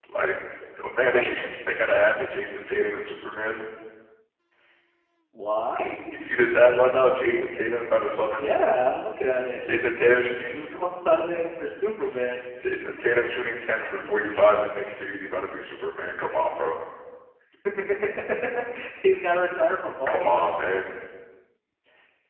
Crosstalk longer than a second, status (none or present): none